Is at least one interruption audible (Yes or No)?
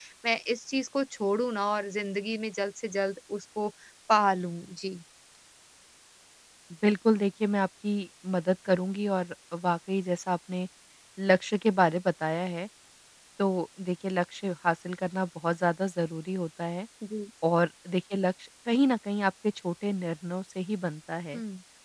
No